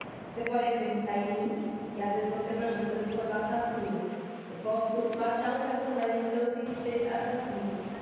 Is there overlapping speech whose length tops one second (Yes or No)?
No